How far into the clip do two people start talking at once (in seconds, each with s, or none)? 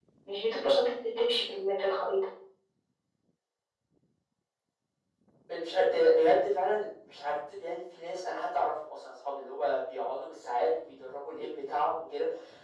none